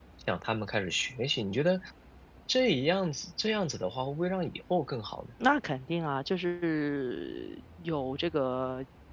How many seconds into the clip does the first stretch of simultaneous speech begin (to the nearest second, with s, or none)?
none